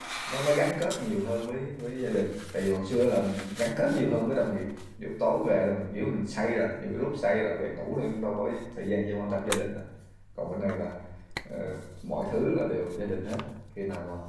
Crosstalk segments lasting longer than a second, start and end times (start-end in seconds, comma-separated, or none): none